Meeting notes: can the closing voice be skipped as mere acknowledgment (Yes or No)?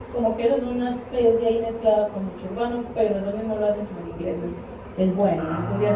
Yes